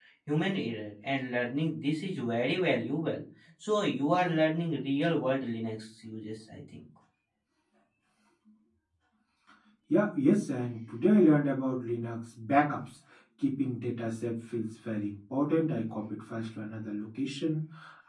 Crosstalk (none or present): none